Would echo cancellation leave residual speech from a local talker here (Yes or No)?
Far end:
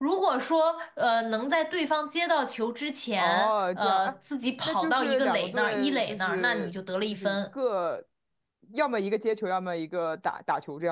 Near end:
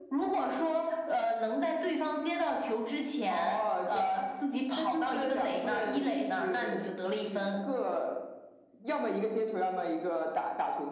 No